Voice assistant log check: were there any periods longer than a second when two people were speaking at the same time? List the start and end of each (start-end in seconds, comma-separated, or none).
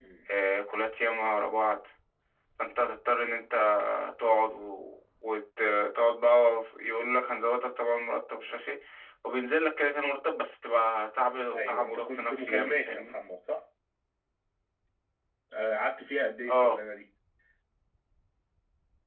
11.5-13.1